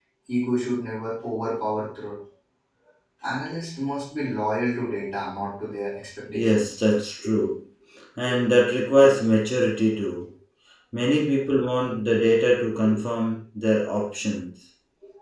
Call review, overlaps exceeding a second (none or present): none